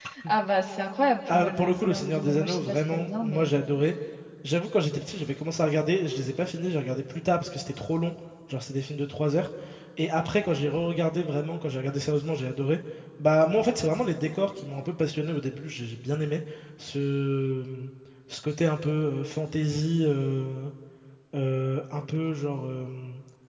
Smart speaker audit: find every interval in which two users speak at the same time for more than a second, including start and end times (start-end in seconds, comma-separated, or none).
1.3-3.6